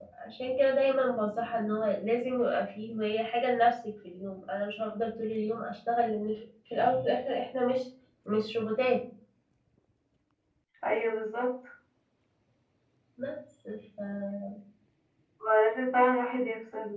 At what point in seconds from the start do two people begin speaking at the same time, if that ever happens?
none

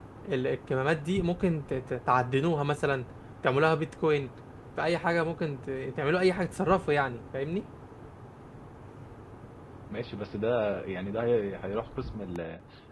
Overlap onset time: none

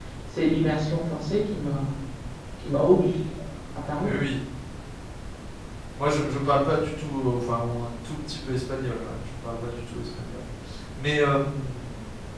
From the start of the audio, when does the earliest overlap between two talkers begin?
none

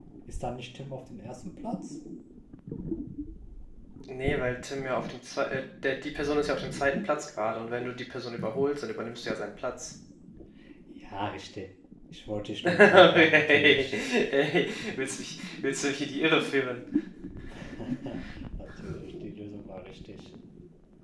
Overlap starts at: 12.6 s

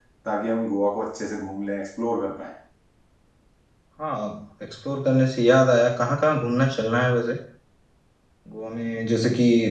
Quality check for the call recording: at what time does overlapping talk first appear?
none

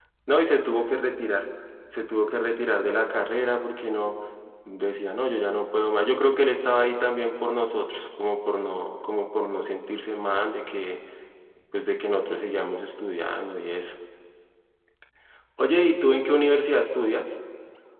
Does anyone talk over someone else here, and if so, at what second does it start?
none

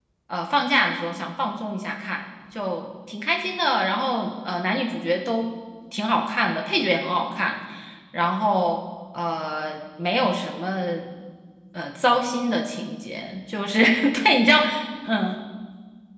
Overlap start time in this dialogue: none

